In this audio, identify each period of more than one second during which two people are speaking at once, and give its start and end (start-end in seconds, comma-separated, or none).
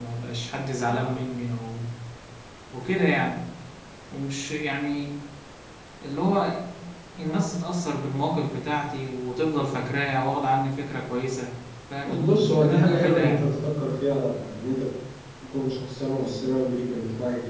12.0-13.5